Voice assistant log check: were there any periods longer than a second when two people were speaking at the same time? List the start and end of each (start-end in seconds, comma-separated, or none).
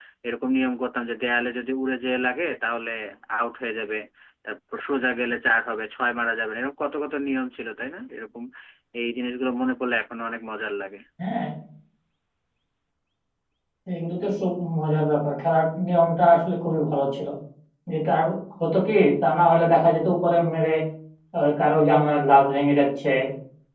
none